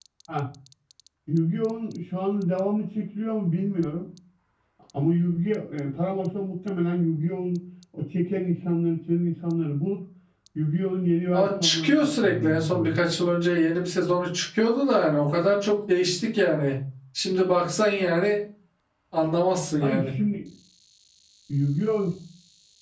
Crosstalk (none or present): present